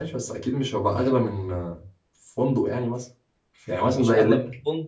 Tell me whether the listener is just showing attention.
No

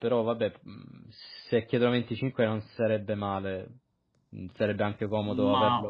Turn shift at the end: Yes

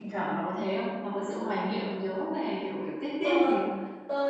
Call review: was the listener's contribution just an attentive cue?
No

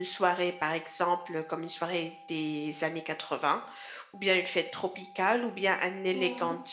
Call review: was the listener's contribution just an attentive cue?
Yes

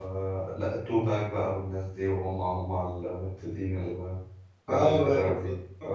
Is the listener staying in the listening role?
No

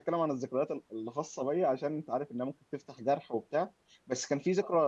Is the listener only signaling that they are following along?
Yes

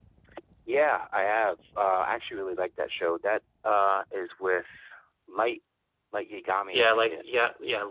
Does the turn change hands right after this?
Yes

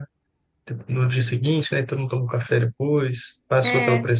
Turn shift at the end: No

